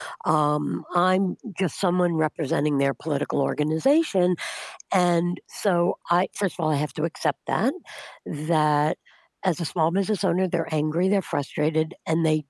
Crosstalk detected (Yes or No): No